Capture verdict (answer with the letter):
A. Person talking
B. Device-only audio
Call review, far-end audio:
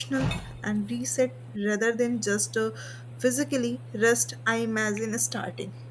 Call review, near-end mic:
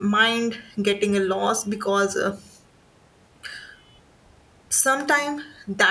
A